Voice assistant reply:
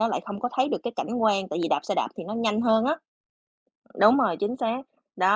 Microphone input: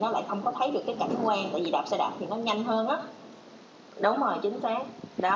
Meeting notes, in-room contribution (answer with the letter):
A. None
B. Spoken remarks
A